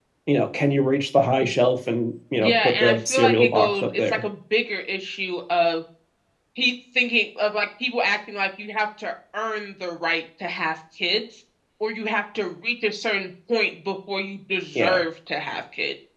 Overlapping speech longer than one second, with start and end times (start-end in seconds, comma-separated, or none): 2.4-4.2